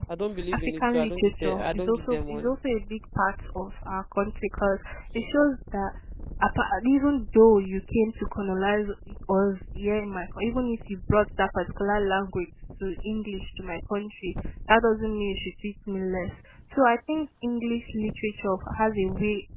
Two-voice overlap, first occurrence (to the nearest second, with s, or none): 1 s